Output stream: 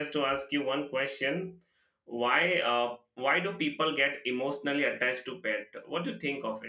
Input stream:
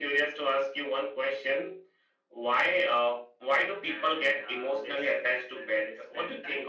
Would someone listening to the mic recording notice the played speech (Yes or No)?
Yes